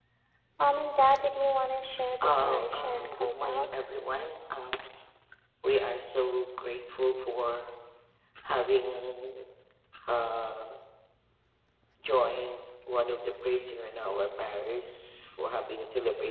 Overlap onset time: 2.2 s

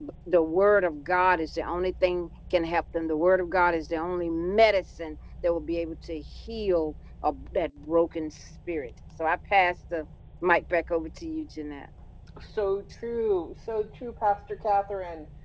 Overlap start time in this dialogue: none

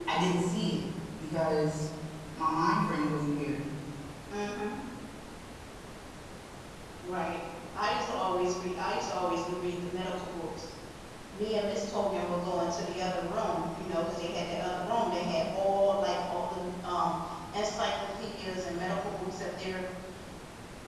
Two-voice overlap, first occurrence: none

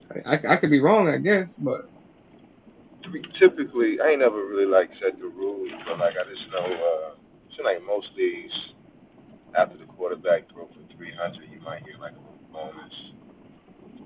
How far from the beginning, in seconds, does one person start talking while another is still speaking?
none

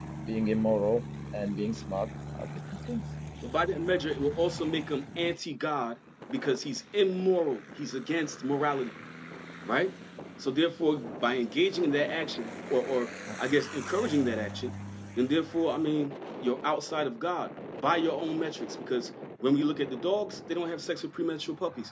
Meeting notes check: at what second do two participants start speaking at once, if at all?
none

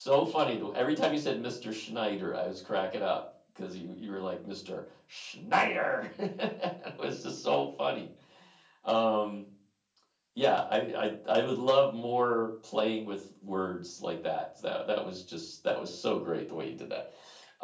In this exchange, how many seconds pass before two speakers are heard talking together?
none

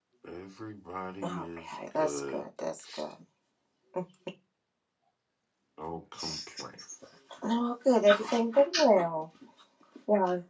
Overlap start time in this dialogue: 1.2 s

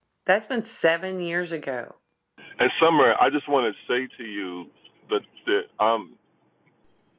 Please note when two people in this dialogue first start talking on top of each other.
none

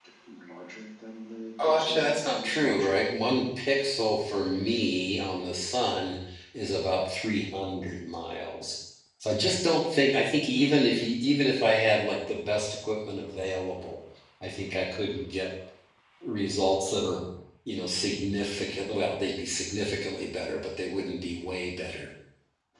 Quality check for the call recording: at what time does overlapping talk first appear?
1.6 s

